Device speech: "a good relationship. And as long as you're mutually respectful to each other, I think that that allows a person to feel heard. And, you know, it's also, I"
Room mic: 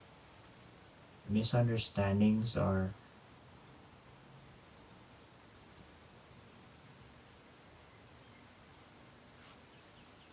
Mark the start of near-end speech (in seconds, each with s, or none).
1.2 s